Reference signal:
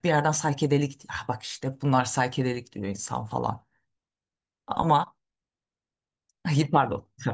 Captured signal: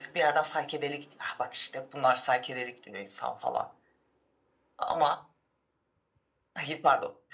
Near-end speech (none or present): none